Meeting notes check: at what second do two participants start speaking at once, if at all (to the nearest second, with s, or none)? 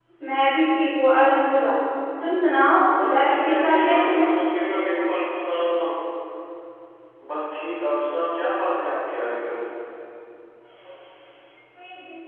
3 s